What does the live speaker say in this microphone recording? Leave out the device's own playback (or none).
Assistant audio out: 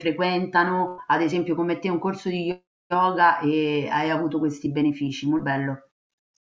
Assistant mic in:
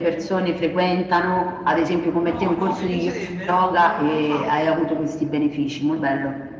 No, no, mi piacerebbe, no, non non l'ho fatto.